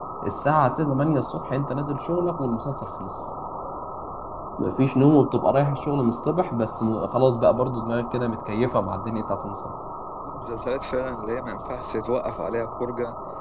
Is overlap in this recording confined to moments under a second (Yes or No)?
Yes